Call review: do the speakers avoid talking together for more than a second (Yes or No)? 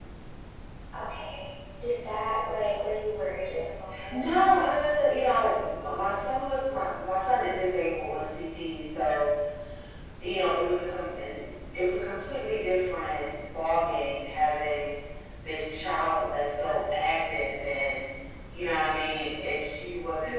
Yes